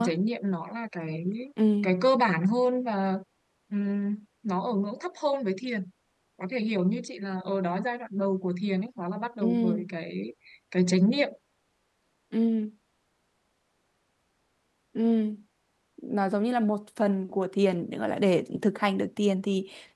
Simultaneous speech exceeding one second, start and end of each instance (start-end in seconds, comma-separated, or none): none